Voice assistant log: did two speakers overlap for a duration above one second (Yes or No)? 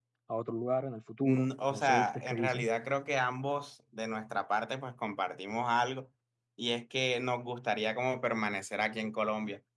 Yes